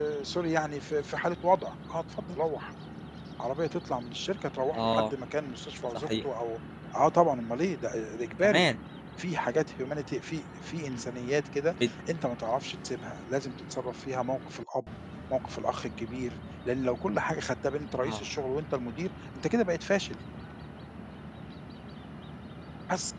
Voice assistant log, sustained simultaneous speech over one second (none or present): none